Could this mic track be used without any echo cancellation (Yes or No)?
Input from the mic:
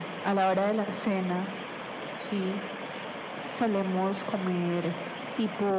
No